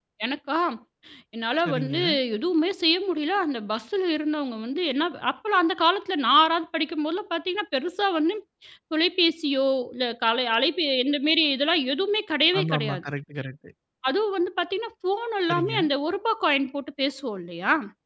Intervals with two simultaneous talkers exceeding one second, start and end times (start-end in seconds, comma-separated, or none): none